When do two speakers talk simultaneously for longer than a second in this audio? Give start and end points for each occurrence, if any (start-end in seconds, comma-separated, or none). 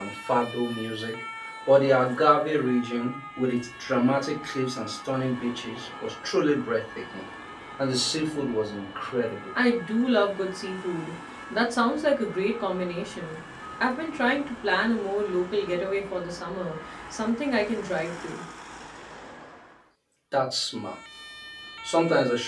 none